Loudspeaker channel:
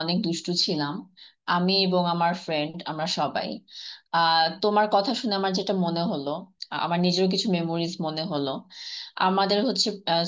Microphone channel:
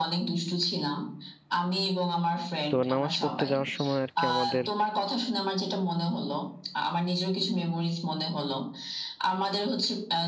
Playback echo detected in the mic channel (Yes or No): Yes